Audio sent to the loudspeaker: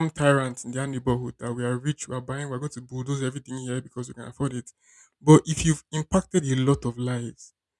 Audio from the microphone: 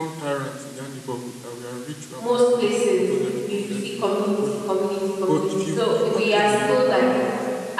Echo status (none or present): present